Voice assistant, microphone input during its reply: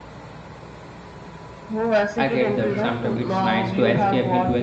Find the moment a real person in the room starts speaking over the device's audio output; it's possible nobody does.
2.2 s

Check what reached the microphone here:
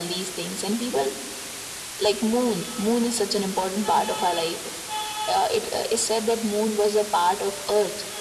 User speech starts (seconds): none

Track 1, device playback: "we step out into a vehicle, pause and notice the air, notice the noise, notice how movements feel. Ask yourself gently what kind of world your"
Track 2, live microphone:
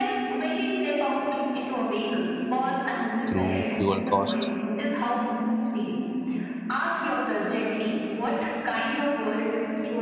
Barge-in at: 3.3 s

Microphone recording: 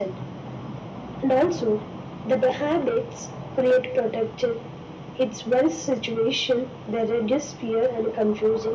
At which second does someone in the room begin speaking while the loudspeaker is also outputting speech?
none

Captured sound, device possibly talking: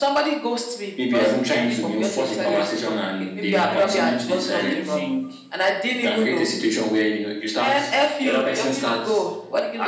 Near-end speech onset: 3.5 s

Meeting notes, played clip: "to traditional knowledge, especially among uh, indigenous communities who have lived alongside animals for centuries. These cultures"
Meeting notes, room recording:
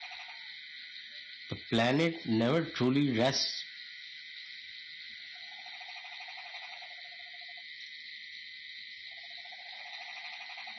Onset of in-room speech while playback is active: 1.5 s

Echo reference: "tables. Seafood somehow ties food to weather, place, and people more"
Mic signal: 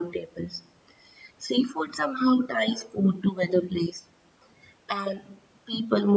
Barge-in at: none

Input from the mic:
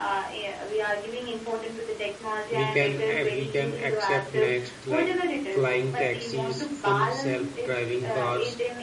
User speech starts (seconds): 2.5 s

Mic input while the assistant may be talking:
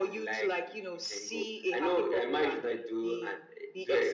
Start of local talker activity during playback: none

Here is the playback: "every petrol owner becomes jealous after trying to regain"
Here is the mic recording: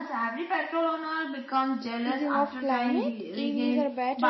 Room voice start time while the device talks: 1.8 s

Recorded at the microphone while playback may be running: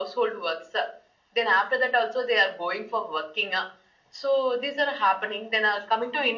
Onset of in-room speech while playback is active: none

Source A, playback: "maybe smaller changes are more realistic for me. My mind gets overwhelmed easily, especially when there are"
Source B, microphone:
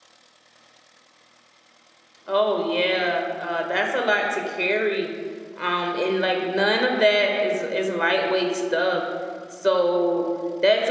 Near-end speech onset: 2.3 s

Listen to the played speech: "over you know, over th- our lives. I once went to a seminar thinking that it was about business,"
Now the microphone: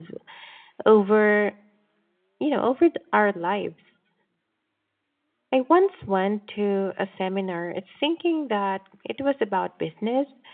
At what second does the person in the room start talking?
none

